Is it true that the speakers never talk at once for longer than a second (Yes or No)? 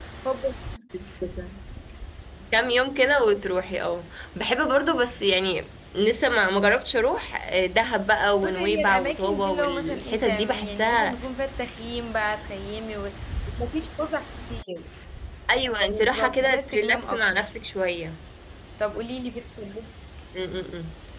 No